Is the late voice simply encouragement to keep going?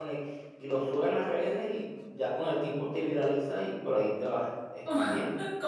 No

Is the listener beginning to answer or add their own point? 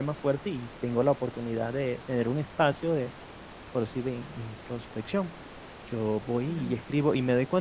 No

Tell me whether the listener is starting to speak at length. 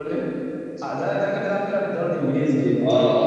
Yes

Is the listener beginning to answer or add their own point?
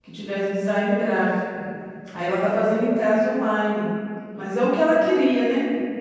No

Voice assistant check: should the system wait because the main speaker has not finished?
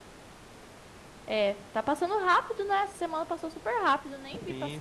No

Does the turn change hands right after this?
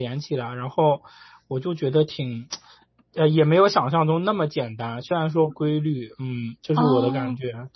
Yes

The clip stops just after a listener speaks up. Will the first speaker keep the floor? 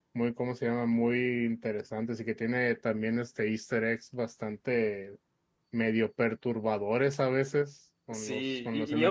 No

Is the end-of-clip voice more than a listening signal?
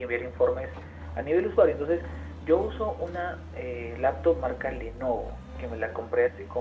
No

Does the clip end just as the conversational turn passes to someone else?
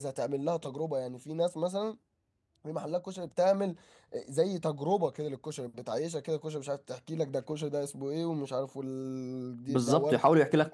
Yes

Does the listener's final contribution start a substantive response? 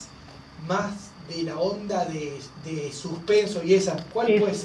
Yes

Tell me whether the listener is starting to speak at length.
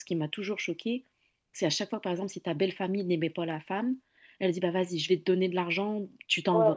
No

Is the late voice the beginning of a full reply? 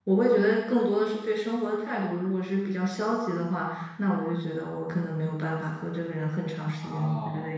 No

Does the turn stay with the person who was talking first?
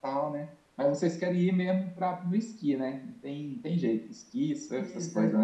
No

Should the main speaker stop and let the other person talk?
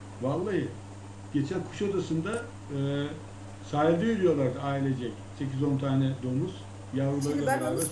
Yes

